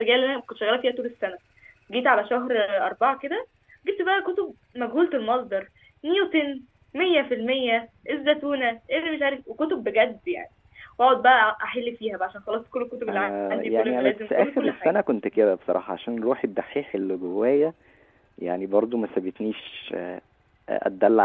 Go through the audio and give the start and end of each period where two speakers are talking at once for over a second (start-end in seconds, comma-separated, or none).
13.1-14.9